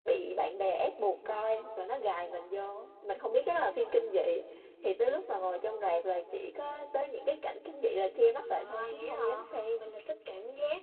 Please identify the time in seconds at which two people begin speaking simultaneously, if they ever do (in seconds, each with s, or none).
8.4 s